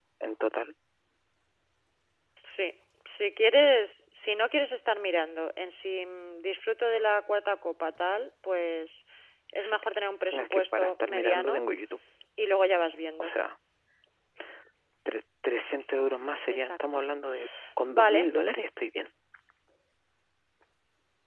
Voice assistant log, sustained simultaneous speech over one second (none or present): present